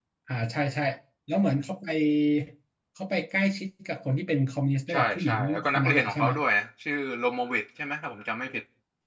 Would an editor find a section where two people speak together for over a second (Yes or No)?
Yes